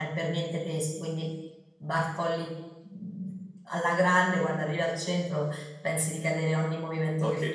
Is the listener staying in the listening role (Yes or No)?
No